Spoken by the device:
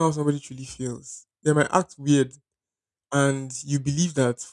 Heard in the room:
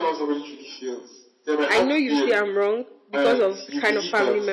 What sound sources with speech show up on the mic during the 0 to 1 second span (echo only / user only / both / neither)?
echo only